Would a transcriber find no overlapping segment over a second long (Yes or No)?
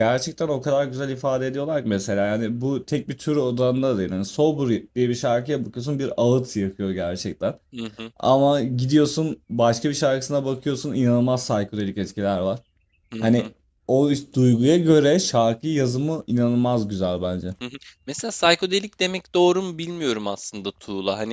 Yes